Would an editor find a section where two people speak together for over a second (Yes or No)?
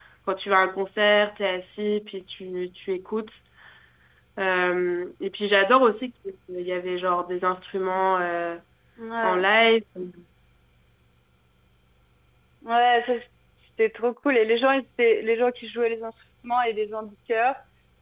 No